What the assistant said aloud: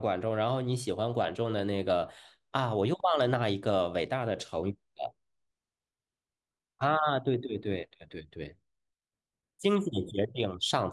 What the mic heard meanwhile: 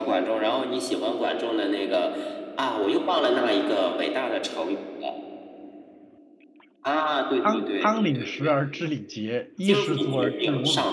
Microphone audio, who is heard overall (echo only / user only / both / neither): both